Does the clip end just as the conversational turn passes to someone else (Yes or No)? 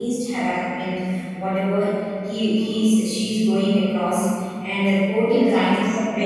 No